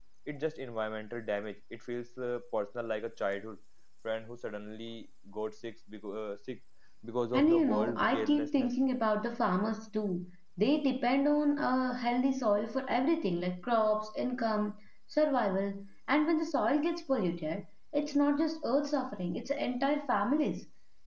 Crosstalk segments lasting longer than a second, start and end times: 7.3-8.7

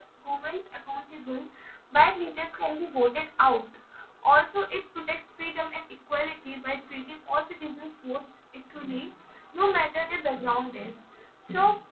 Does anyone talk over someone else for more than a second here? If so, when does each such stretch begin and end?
none

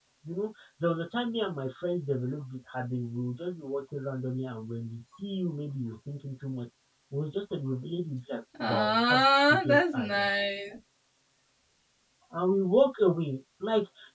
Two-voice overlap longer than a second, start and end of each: 8.7-10.3

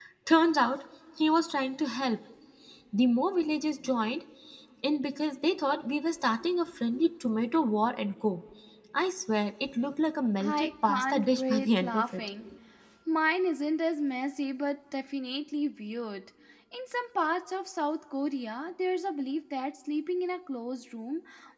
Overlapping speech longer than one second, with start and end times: 10.4-12.3

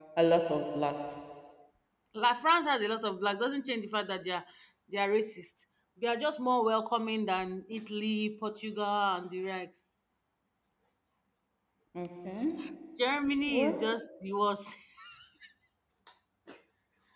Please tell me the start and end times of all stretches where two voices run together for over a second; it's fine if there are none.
none

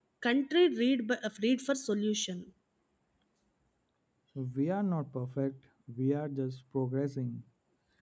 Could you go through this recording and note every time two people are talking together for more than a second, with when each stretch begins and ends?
none

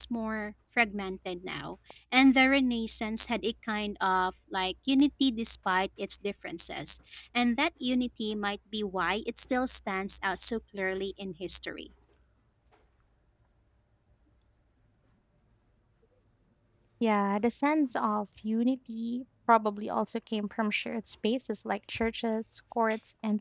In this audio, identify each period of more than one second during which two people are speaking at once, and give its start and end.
none

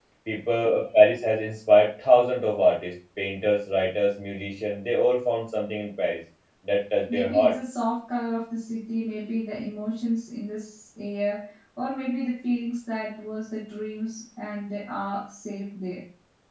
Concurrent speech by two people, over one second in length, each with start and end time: none

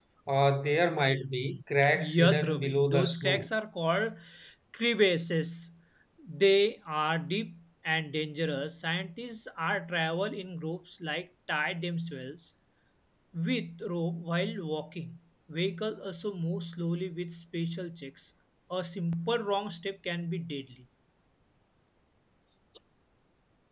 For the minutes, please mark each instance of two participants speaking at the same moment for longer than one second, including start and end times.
2.0-3.5

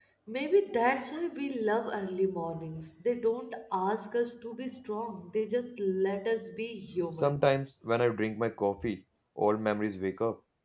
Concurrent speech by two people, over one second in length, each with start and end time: none

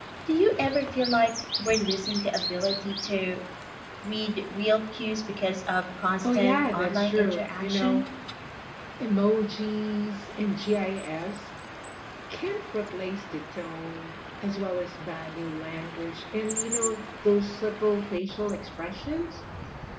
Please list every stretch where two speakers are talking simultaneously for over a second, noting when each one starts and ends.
6.2-8.0

